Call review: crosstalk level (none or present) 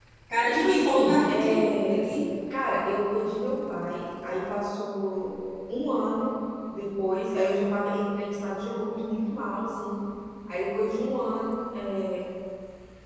present